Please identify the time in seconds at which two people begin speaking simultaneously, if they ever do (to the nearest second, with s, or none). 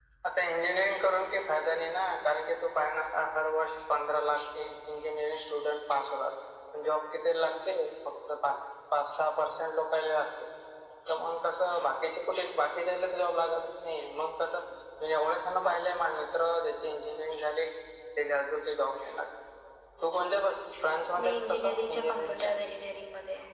21 s